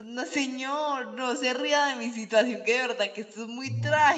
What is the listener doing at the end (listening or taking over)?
taking over